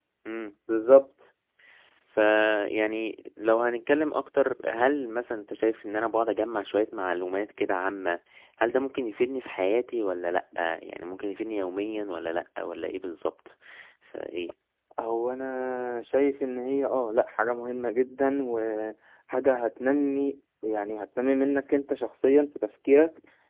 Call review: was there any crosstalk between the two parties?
No

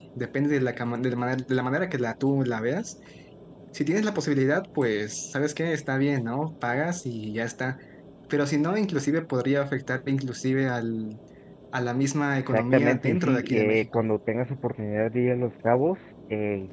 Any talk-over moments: Yes, from 12.4 s

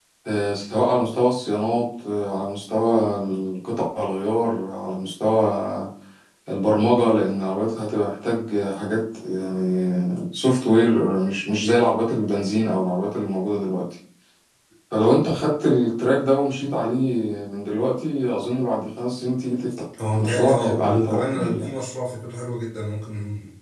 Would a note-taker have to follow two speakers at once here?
Yes, from 20.2 s

